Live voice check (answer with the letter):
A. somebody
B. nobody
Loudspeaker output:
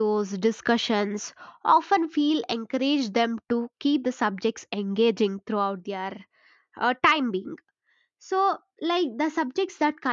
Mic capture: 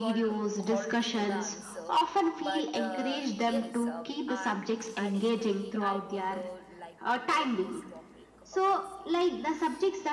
A